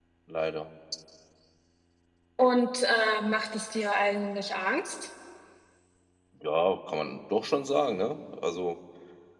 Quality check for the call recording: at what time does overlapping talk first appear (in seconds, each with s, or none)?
none